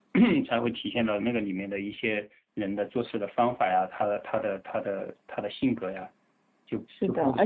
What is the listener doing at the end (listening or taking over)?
taking over